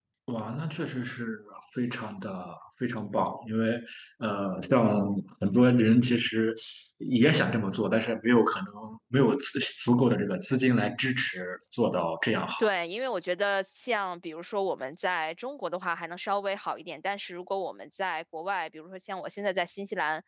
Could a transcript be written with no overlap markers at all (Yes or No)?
Yes